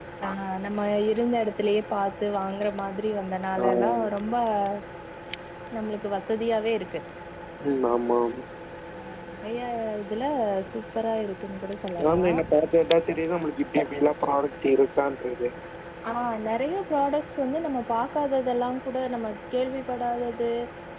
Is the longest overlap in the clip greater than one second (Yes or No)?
No